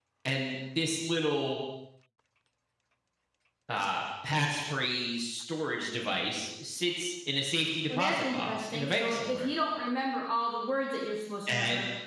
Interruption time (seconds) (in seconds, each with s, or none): 8.0 s